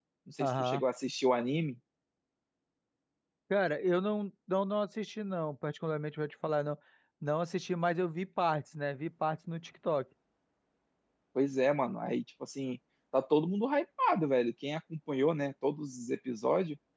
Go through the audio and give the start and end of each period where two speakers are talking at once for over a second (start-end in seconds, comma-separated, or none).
none